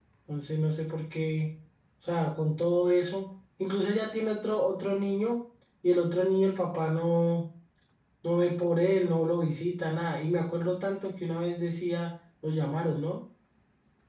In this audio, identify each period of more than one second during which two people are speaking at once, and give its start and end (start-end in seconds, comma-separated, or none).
none